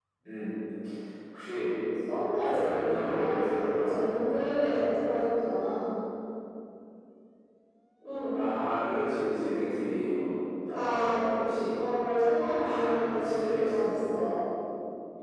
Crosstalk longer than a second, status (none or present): present